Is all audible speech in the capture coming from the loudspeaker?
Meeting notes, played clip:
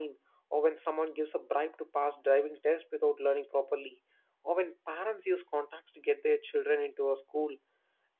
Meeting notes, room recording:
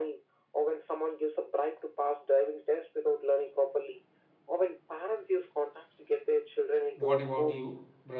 No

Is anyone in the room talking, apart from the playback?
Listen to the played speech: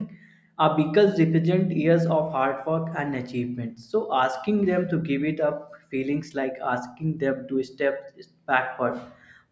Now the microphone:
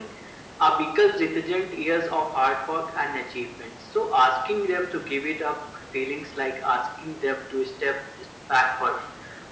No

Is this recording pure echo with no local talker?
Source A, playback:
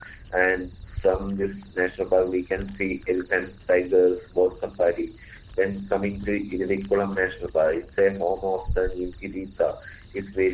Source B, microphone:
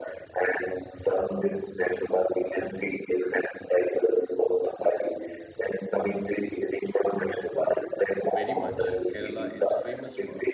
No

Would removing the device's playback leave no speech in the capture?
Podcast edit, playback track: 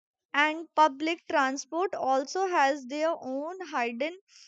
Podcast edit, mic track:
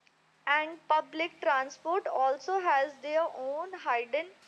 Yes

